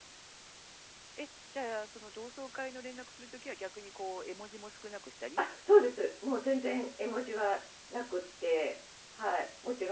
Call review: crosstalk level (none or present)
none